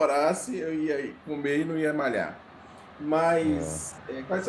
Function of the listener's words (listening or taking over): listening